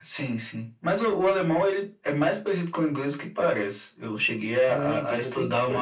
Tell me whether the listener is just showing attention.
No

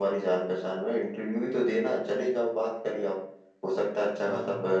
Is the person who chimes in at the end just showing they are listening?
Yes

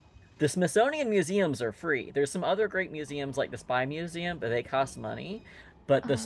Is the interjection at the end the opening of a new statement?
No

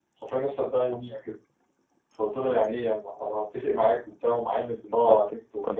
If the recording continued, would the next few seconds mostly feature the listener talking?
Yes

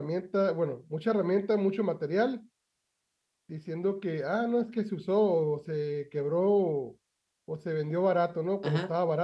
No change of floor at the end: No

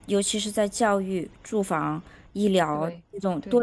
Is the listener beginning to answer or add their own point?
No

